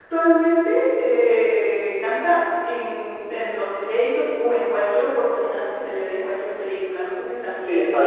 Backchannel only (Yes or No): No